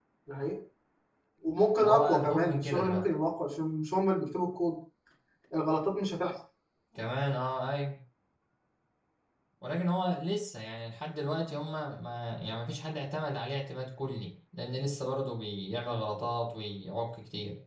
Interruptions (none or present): present